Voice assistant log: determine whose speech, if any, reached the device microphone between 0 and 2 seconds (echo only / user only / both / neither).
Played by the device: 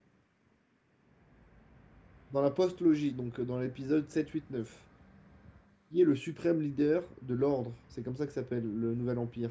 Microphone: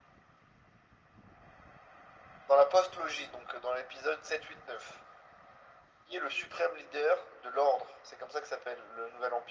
neither